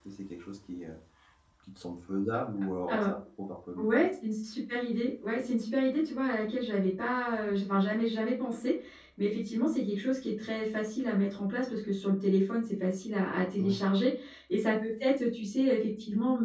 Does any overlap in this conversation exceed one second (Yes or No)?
No